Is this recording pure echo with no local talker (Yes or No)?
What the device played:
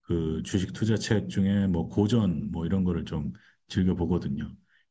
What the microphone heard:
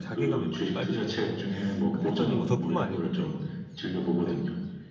No